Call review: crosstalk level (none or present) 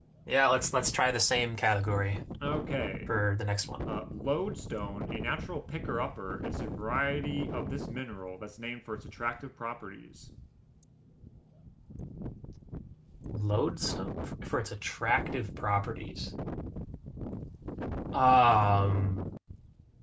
none